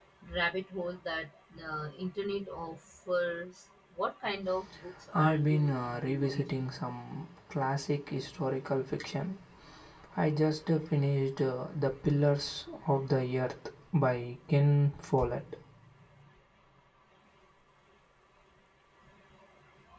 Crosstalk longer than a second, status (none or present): present